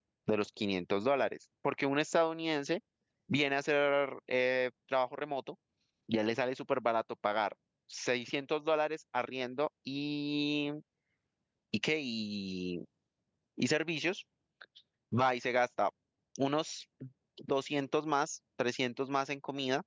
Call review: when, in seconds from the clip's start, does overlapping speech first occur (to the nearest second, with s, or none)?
none